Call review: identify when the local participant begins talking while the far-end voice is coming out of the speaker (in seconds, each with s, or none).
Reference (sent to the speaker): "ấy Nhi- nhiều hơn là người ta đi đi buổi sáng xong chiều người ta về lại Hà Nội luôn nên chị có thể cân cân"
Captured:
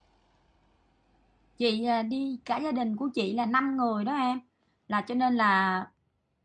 1.6 s